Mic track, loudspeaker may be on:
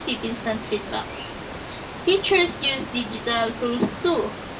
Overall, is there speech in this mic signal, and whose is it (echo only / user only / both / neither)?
echo only